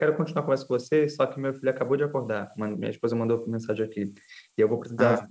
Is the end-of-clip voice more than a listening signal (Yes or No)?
No